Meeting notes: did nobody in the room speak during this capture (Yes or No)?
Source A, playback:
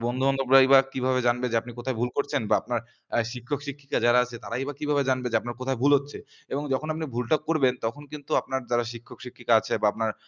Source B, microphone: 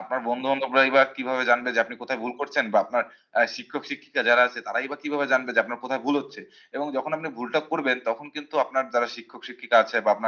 Yes